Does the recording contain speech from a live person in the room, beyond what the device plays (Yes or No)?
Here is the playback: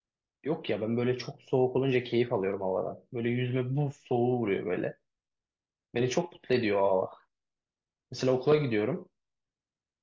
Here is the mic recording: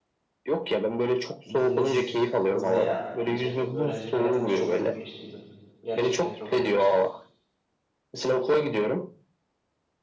Yes